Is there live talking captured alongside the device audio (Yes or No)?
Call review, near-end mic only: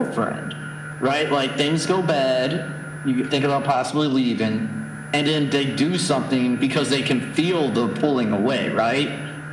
No